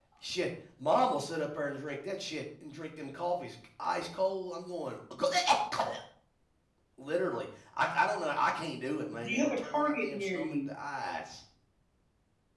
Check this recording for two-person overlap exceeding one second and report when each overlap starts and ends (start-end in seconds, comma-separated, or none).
9.1-10.7